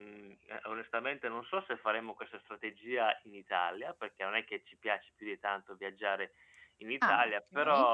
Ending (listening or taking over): listening